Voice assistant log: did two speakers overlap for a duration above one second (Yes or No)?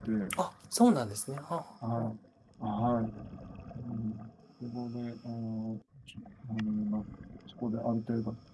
No